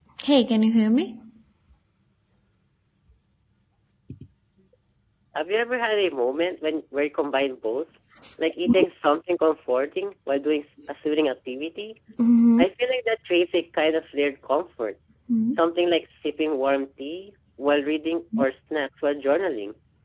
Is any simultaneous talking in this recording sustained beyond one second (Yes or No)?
No